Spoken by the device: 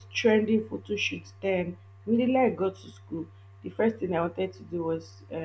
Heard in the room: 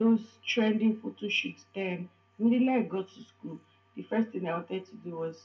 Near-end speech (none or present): none